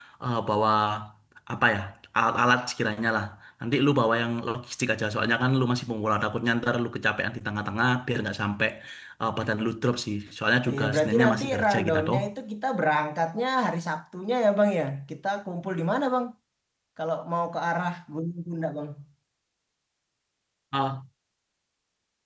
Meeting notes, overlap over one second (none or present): present